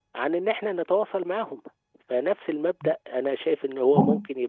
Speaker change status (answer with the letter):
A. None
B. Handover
A